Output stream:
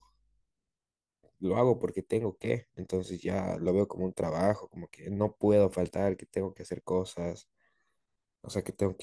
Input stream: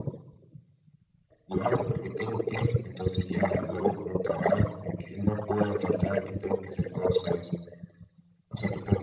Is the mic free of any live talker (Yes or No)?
Yes